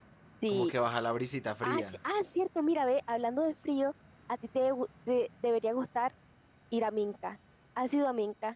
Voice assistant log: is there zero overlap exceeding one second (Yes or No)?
Yes